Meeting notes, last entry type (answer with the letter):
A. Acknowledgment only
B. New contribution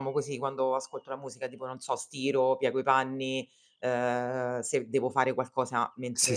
B